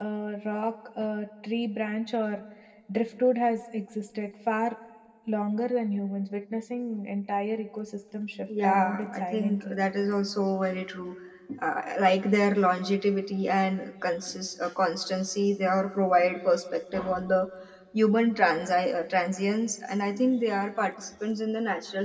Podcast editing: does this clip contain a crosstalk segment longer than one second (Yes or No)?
Yes